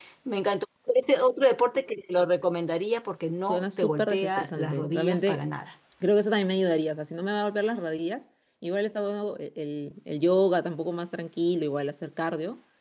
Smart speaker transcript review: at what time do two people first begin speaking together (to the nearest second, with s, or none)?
3 s